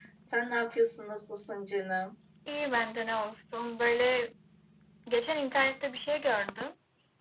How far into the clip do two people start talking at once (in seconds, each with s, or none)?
none